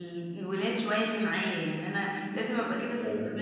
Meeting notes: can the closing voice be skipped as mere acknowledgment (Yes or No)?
Yes